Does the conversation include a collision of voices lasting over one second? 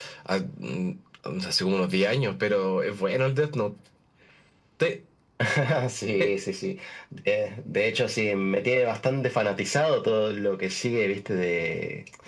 No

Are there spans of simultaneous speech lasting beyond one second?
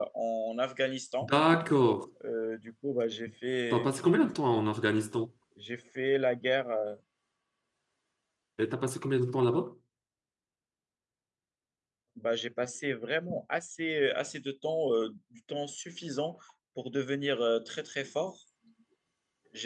No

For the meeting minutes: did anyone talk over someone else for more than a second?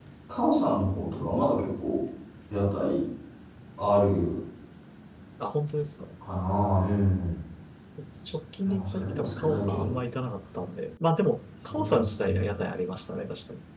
Yes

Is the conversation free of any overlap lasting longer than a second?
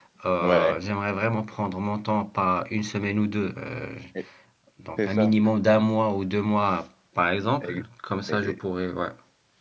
Yes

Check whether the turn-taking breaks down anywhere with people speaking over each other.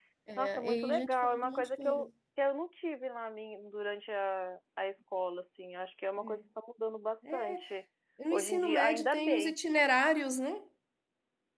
Yes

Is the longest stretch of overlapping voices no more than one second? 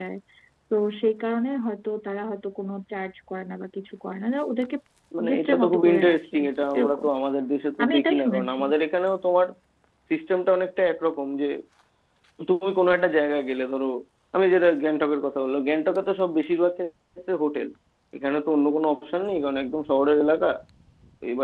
No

